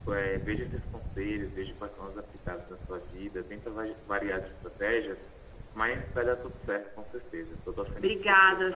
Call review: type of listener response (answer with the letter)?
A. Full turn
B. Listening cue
A